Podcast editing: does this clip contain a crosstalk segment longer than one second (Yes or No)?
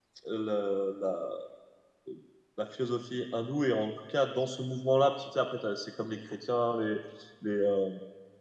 No